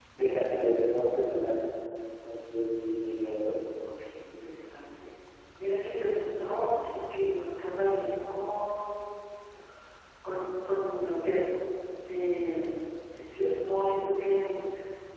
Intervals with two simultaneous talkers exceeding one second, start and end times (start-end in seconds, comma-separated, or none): none